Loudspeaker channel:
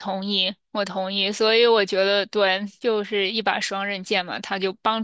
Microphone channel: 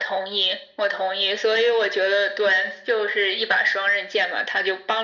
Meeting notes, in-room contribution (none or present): none